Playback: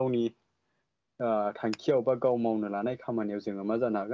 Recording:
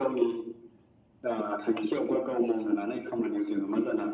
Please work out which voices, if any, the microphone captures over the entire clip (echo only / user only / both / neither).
echo only